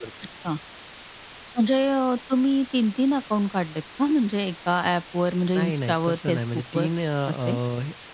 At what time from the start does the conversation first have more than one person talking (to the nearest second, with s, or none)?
6 s